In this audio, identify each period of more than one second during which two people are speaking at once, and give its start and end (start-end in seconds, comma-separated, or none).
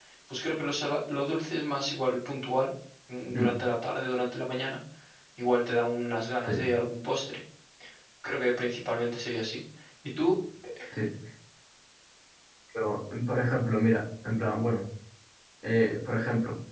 none